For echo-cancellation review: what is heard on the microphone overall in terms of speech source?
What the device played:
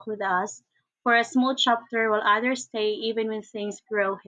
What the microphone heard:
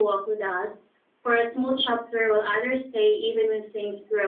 echo only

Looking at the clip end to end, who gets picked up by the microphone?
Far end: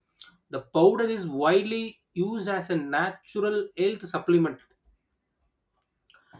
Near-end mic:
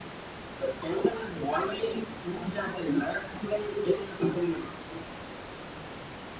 echo only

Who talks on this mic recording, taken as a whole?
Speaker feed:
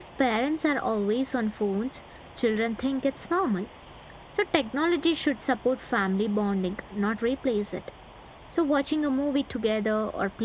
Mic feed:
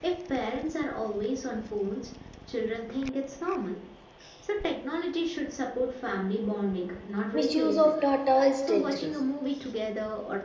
both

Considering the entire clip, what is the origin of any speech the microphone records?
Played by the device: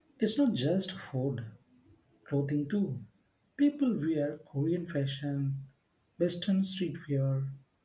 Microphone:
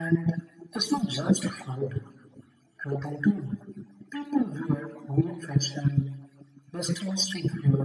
echo only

